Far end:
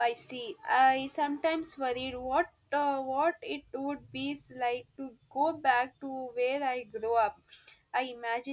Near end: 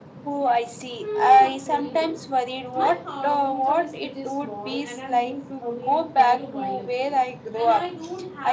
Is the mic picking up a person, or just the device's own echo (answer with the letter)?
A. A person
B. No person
A